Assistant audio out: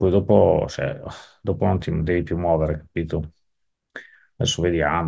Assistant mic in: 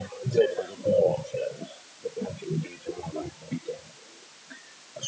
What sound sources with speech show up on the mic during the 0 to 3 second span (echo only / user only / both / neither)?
echo only